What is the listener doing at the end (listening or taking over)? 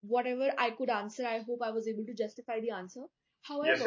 taking over